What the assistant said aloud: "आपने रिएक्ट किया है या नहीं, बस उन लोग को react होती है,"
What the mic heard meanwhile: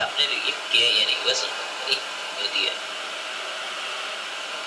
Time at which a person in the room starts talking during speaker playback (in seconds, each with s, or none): none